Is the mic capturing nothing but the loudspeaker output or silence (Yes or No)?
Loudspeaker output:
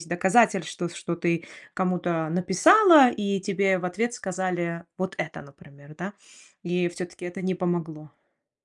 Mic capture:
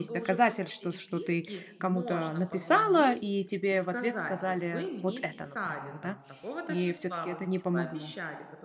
No